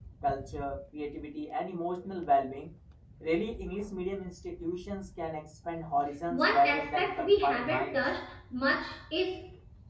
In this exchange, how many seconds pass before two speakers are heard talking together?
6.3 s

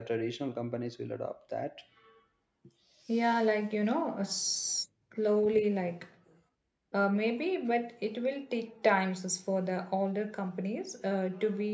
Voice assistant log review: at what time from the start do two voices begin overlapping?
none

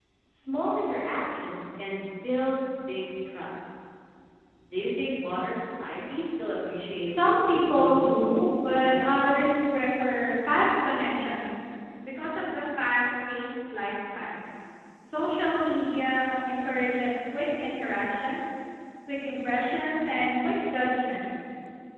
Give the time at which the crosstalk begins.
7.1 s

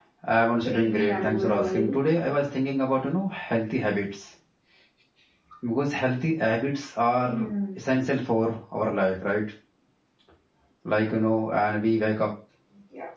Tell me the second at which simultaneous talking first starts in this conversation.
0.6 s

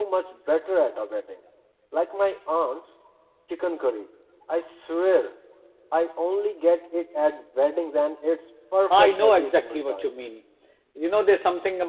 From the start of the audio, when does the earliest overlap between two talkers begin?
8.9 s

